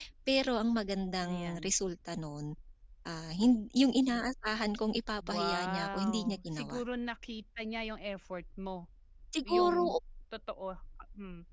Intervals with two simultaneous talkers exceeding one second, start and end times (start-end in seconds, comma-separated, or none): 5.3-6.8